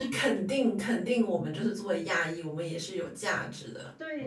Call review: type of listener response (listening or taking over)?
taking over